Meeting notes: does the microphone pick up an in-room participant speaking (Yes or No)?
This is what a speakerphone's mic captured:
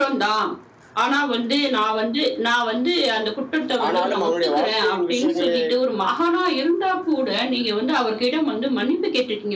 Yes